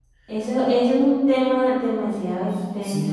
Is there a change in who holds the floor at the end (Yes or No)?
Yes